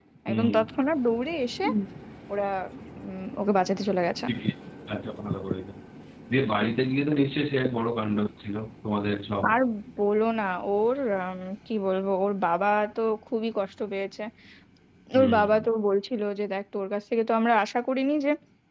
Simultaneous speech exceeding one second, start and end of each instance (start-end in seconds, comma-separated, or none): none